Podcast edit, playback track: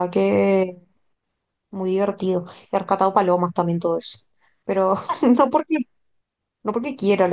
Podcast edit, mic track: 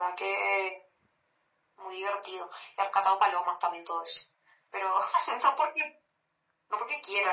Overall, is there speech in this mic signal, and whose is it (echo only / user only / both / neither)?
echo only